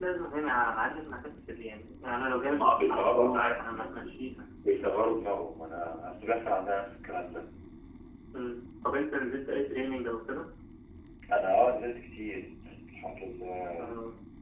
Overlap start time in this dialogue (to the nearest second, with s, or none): 2 s